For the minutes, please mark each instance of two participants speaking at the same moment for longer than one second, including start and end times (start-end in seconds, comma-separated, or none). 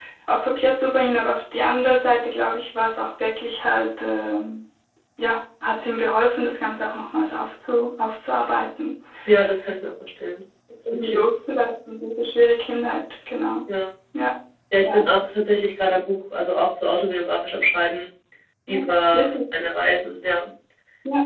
none